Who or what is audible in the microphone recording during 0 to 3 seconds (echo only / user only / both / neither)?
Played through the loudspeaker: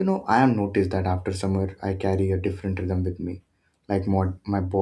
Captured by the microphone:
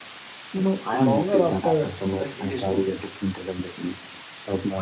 both